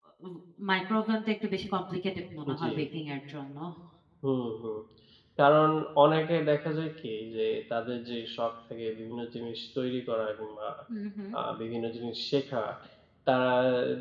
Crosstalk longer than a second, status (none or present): none